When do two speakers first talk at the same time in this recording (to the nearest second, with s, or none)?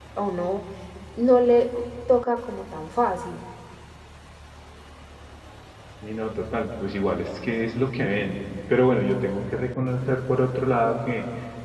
none